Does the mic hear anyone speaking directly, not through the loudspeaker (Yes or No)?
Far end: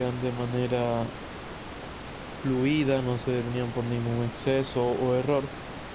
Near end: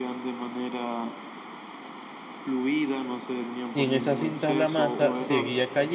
Yes